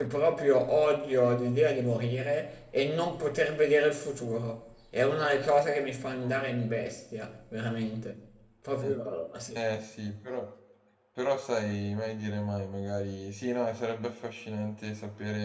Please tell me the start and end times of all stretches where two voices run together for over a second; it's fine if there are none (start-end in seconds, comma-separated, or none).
none